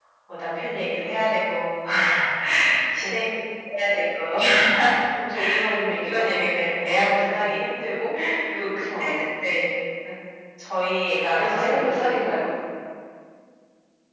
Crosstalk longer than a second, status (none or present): present